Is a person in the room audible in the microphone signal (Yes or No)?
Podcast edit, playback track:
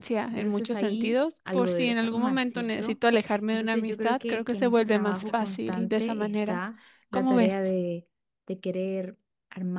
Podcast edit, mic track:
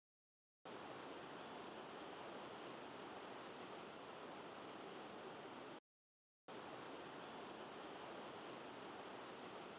No